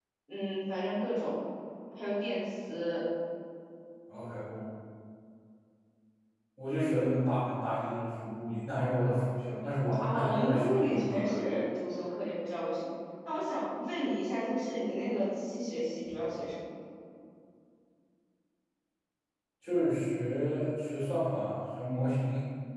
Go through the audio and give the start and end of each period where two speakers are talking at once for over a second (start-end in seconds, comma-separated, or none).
10.0-11.3